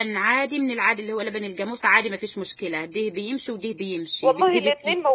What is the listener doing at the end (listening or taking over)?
taking over